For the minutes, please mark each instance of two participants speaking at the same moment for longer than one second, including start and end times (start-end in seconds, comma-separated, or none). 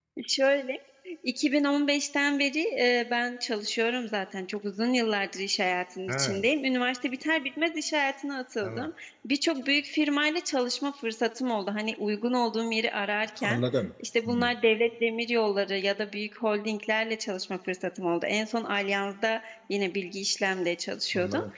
none